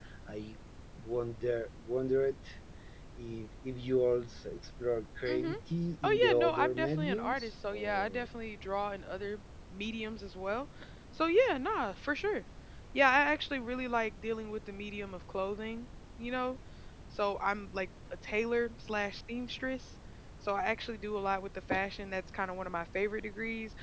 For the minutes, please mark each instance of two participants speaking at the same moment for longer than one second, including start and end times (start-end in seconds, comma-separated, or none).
6.0-8.2